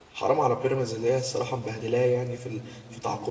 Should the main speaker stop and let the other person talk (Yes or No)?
Yes